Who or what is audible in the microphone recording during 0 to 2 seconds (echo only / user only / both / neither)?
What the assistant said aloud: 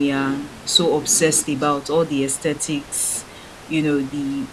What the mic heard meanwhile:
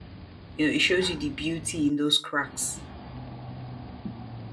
user only